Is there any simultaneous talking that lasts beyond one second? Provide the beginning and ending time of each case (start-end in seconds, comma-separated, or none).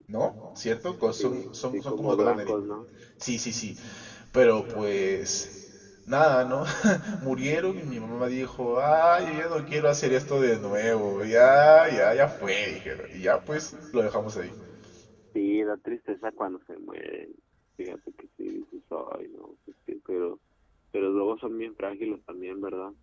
1.1-2.5